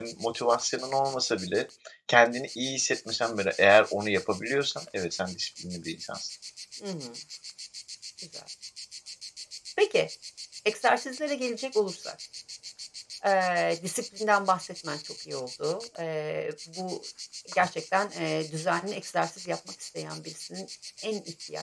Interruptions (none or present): none